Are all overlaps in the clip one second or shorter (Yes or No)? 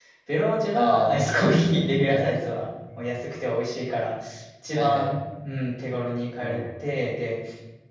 No